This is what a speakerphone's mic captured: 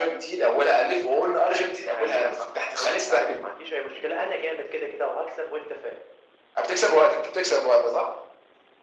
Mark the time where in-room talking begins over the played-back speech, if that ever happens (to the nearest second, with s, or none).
none